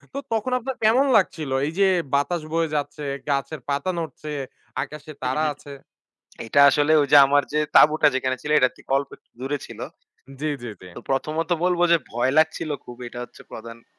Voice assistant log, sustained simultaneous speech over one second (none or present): none